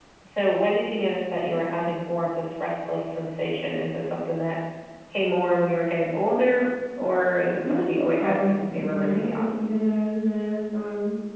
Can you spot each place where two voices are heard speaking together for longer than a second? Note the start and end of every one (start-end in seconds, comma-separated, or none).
7.6-9.5